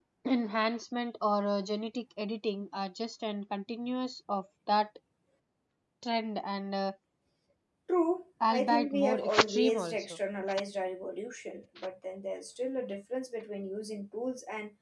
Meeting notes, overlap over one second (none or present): present